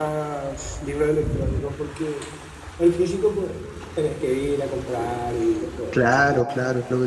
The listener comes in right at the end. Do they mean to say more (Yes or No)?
Yes